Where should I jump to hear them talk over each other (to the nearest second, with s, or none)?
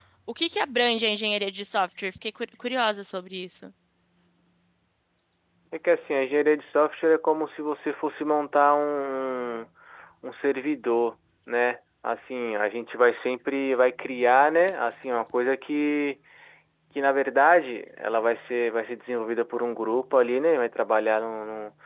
none